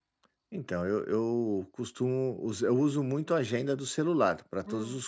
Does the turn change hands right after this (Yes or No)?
Yes